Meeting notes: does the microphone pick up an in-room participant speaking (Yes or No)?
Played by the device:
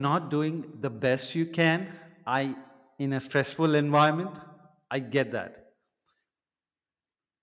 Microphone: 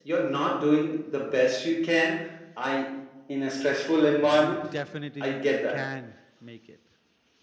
Yes